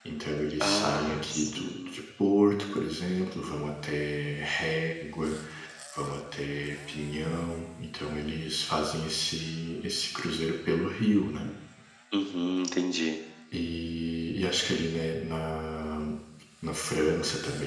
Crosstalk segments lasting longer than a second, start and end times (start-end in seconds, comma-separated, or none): 0.6-2.0